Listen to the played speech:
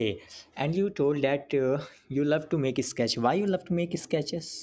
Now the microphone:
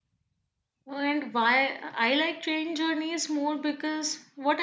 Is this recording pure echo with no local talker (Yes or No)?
No